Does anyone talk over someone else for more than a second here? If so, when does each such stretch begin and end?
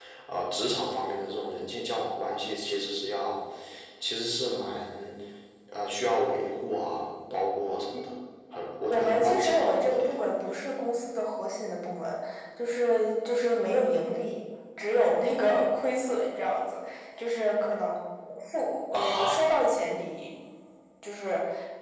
8.9-10.1

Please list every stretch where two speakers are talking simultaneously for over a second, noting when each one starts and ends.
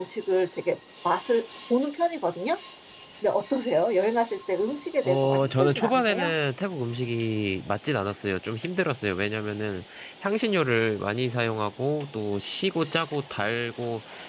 5.0-6.3

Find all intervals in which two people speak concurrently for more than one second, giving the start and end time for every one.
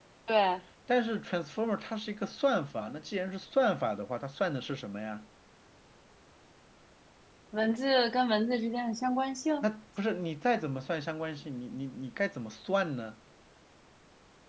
none

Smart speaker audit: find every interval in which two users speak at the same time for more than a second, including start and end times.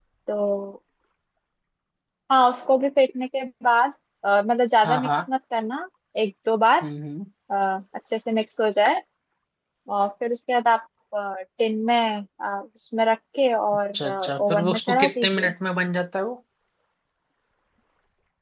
13.9-15.5

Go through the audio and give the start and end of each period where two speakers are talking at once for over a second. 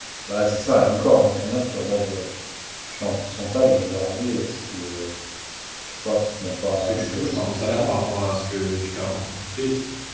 6.8-8.0

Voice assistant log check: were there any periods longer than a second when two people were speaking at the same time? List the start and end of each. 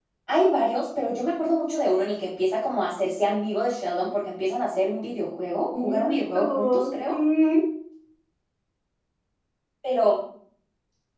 5.8-7.1

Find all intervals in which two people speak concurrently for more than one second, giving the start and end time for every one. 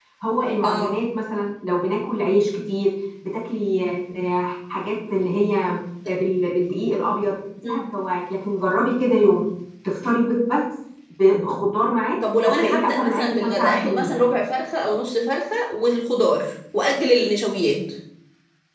12.4-14.3

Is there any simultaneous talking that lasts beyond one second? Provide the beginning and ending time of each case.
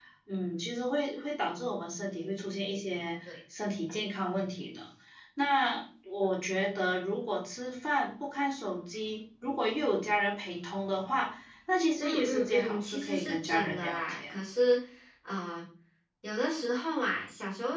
12.0-14.4

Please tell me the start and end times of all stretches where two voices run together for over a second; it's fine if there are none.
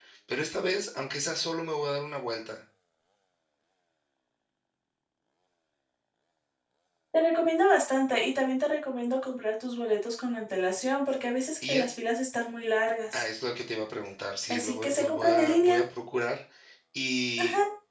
14.5-15.8

